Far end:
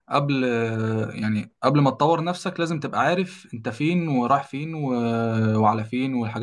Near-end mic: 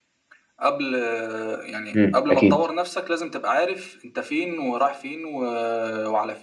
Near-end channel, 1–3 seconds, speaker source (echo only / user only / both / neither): both